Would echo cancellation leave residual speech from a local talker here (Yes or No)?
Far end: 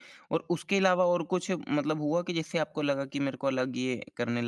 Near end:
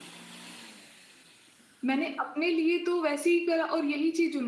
Yes